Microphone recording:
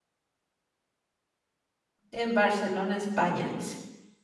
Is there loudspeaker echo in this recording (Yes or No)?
No